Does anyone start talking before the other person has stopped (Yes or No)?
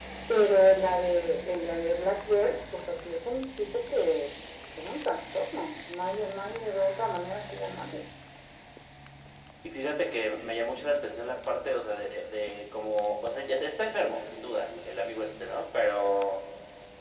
No